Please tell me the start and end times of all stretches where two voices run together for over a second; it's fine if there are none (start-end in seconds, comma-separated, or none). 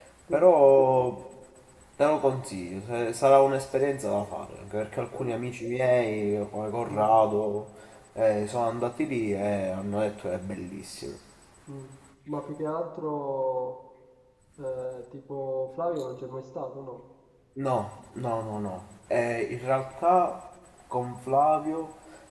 none